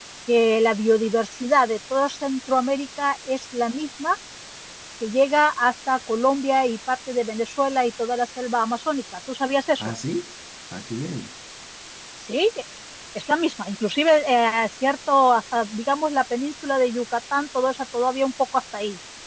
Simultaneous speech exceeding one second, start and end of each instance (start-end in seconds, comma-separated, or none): none